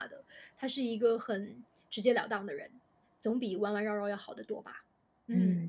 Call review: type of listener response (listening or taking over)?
taking over